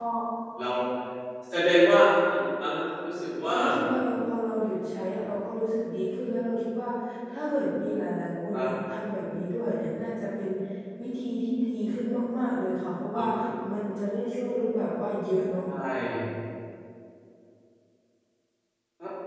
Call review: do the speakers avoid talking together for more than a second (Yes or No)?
Yes